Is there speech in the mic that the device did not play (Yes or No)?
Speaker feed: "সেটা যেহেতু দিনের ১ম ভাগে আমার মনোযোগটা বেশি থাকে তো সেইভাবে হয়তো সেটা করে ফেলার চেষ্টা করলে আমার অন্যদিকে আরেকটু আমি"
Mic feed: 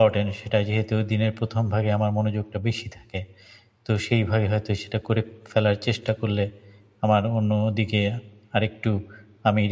No